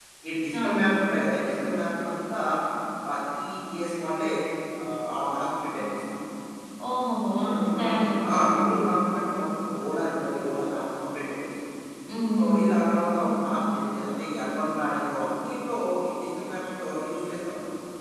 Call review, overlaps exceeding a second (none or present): present